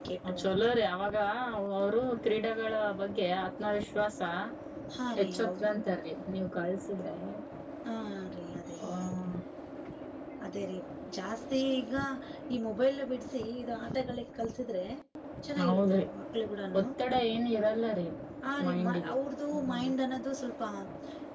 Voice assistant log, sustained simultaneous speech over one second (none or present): none